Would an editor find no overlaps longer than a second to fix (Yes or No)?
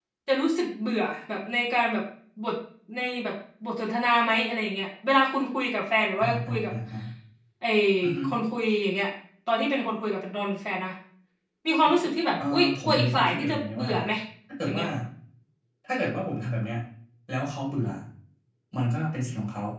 No